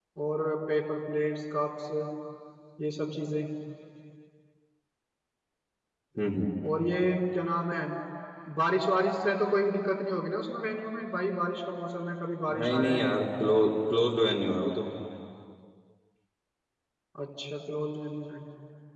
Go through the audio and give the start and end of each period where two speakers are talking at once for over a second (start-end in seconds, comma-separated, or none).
none